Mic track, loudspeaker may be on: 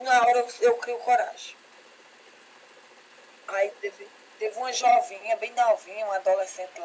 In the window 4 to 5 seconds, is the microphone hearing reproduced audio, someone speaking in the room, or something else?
echo only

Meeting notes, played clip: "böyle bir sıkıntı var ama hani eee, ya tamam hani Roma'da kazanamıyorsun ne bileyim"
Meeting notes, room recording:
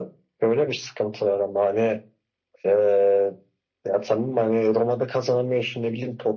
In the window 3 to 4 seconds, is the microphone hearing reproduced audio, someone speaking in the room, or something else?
echo only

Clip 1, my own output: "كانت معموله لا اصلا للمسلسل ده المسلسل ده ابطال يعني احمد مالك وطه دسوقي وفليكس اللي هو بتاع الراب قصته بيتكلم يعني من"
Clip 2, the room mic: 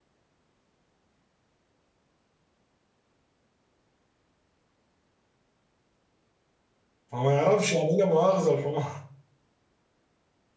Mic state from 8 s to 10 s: user only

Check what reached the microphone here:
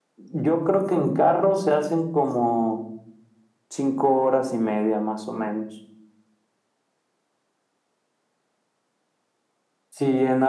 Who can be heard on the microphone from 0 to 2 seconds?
echo only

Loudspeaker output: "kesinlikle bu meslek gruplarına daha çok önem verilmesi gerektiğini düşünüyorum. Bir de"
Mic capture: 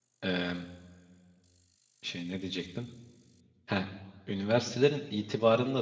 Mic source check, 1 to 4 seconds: user only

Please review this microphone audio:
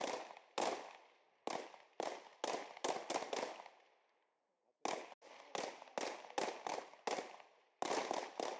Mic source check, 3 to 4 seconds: neither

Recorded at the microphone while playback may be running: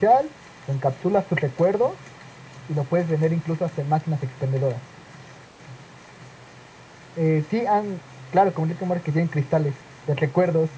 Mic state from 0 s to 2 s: echo only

